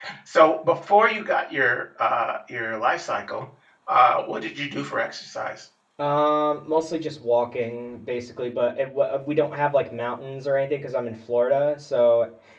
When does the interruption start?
none

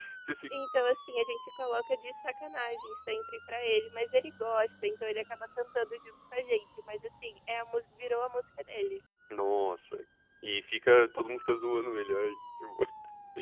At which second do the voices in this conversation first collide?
none

